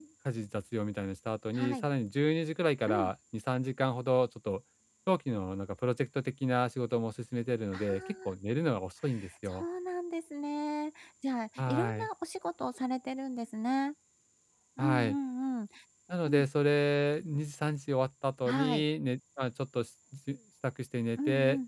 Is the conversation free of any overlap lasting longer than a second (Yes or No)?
Yes